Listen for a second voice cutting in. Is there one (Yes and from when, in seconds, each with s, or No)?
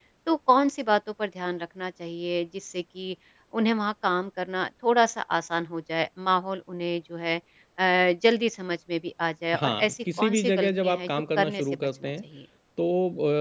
Yes, from 9.5 s